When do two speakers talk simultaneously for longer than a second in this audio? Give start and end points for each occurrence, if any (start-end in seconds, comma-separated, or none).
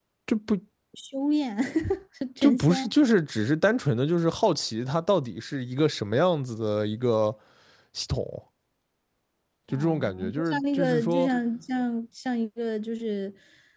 9.7-11.3